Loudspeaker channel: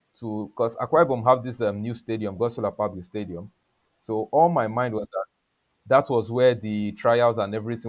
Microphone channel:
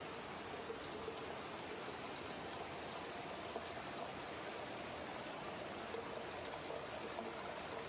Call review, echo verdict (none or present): none